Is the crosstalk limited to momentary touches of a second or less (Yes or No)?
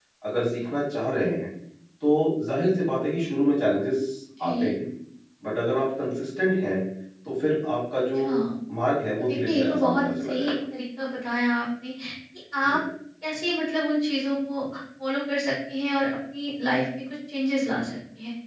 No